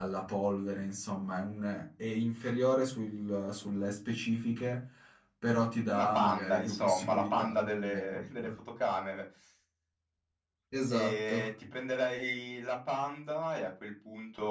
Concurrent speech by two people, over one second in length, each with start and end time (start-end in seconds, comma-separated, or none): 5.9-8.5